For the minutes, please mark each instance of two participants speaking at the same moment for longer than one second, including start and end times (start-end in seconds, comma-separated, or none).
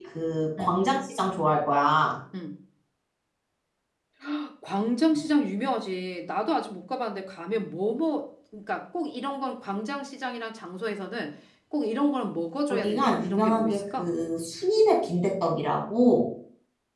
12.7-14.1